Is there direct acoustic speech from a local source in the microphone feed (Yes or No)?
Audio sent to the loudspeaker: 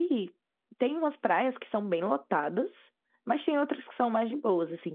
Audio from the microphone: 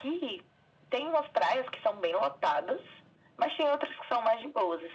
No